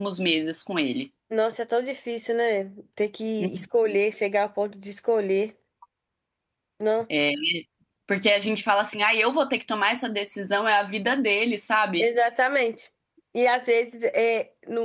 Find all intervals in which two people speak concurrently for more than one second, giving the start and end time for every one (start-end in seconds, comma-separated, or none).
none